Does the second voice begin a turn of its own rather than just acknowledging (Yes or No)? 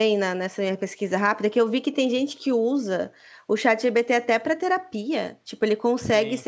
No